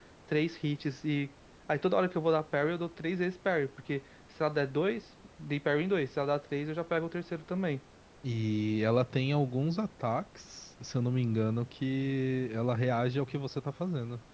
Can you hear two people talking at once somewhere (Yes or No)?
No